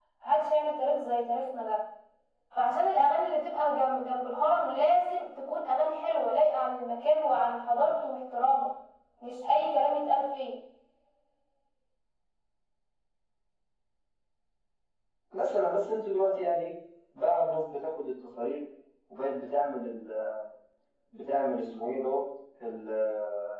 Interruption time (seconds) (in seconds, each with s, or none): none